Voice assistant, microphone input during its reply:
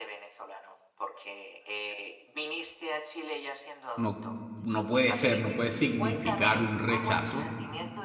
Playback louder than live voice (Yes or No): No